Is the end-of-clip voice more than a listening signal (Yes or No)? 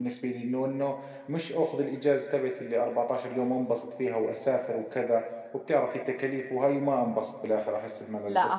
Yes